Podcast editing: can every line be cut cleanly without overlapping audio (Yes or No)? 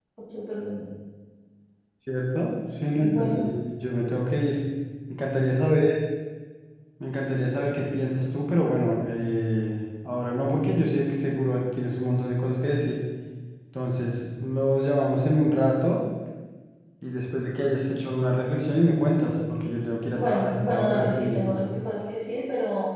No